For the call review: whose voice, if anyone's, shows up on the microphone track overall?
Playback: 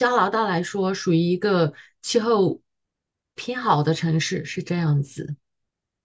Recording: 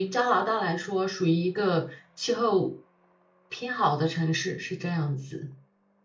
echo only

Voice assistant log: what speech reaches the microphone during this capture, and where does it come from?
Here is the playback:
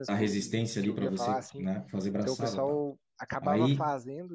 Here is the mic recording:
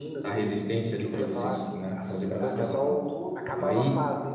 both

